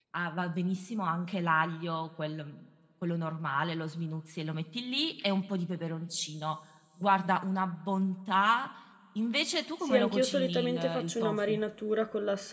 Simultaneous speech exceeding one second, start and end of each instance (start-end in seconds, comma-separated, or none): 9.8-11.6